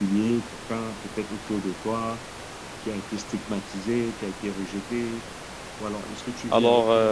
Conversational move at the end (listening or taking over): listening